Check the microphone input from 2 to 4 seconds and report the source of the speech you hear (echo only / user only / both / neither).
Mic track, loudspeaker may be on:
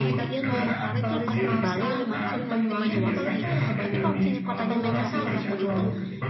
both